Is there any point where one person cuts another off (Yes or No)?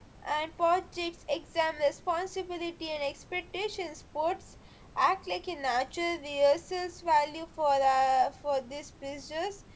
No